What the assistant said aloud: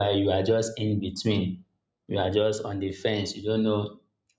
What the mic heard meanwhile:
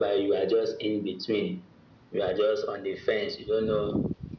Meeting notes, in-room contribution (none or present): none